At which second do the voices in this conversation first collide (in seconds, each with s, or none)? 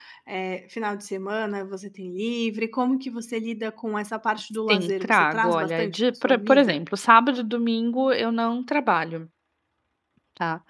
4.7 s